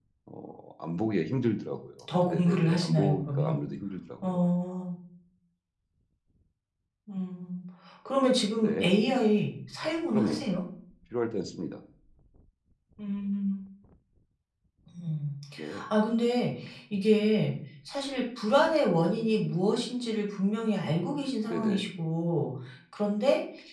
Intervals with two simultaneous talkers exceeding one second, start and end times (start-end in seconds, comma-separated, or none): 2.3-3.5